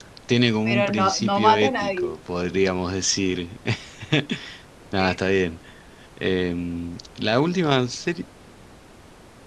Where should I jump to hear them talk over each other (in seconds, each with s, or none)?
0.7 s